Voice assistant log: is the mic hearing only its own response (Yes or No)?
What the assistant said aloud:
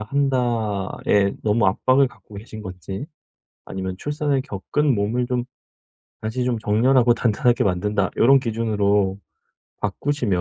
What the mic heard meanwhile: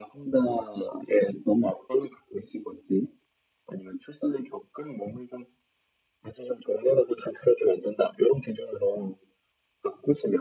Yes